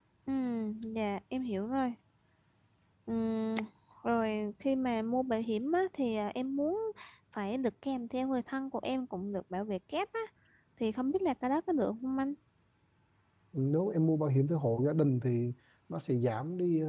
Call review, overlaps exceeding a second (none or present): none